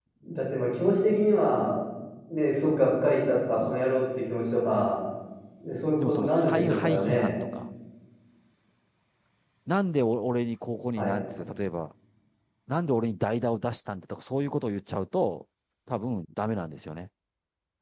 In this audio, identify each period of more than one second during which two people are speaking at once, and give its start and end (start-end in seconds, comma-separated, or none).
6.0-7.3